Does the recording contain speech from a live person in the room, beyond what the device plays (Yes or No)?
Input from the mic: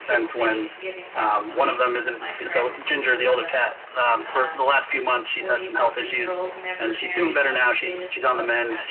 Yes